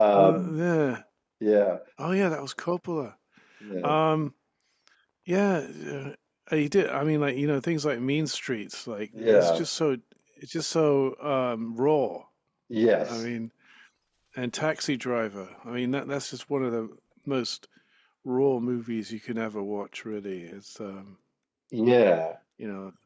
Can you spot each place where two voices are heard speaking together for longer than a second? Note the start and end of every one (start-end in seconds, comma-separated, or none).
none